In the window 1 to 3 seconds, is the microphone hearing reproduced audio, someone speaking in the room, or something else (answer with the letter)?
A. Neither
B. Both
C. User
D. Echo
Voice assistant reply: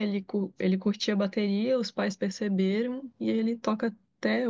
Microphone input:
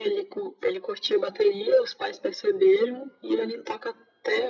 D